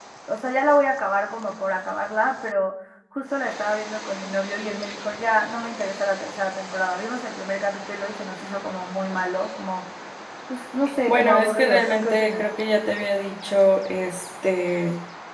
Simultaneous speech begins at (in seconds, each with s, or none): 11.1 s